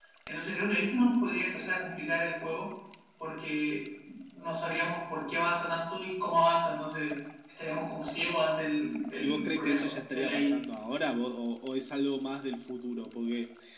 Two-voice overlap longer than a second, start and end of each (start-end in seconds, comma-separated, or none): 9.2-10.5